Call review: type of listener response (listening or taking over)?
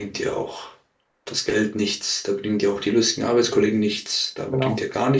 listening